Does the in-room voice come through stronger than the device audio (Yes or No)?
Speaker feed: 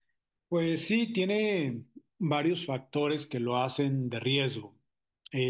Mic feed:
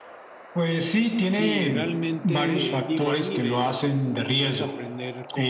No